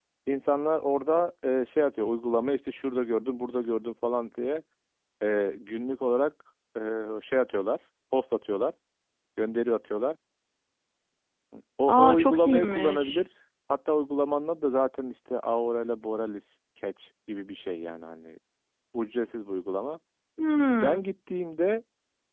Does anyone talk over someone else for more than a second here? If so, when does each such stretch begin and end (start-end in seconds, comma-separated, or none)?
11.9-13.2